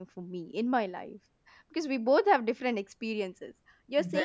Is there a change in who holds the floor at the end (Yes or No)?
No